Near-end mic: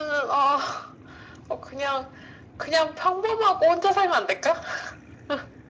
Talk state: echo only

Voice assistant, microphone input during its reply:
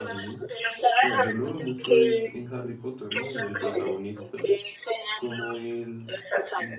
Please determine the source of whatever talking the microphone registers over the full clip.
both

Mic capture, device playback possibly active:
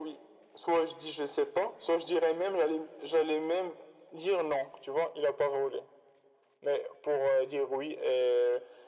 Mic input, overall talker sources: echo only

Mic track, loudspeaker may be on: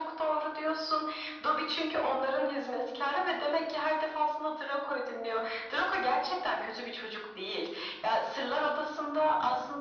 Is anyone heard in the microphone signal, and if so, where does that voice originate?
echo only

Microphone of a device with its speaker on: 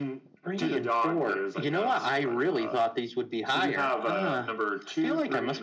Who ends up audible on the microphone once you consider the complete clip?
echo only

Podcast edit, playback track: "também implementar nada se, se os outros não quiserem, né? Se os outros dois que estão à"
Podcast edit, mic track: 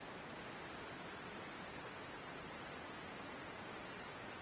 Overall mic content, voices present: neither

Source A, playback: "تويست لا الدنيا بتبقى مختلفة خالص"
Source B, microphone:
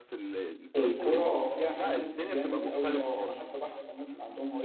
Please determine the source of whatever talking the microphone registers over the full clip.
both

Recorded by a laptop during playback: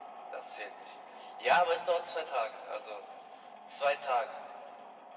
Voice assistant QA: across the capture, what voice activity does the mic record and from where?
echo only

